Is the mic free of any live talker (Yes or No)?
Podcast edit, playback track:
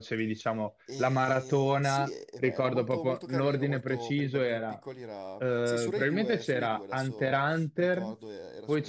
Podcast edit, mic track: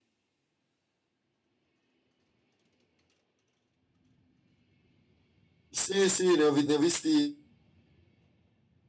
No